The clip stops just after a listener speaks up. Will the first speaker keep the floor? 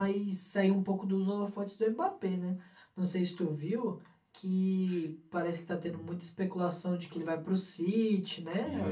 No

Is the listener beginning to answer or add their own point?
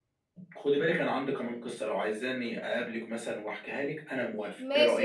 Yes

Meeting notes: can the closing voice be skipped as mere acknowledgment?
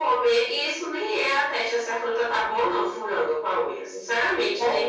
No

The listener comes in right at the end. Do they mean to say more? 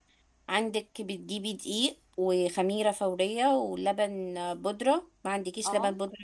No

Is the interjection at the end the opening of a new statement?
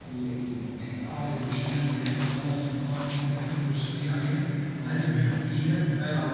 No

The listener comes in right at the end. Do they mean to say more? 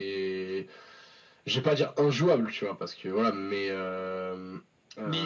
Yes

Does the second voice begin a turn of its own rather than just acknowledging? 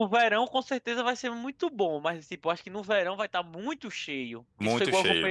No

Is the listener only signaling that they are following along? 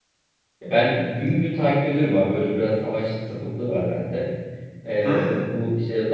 Yes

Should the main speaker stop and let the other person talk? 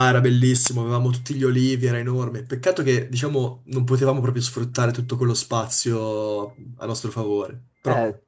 Yes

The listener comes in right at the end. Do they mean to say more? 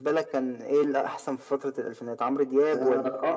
Yes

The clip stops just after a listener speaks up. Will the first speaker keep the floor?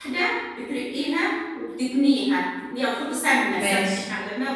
Yes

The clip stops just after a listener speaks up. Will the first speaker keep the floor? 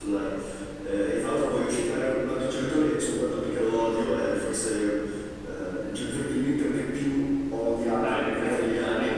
No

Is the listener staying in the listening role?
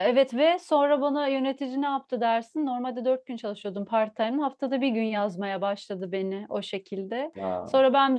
Yes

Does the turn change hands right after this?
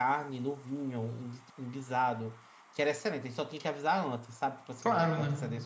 No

